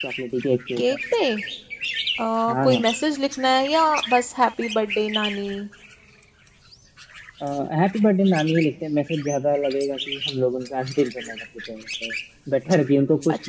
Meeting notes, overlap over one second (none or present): none